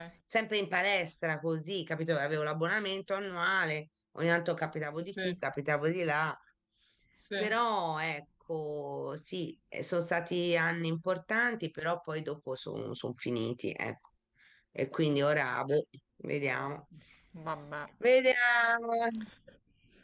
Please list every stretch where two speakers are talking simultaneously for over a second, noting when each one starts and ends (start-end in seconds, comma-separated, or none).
none